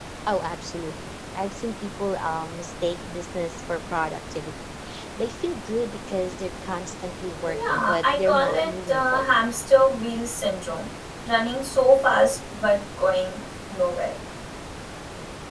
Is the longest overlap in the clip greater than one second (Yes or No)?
Yes